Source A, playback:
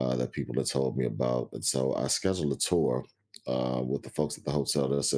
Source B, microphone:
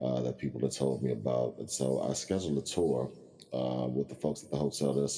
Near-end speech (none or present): none